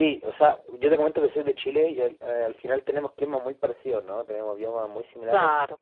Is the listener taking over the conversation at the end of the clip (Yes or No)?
No